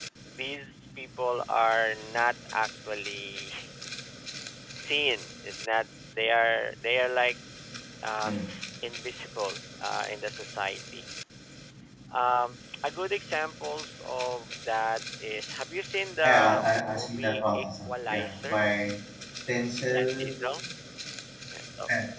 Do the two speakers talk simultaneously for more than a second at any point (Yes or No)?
Yes